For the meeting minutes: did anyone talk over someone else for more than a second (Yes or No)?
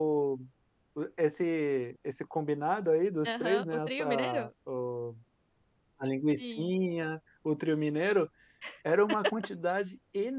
Yes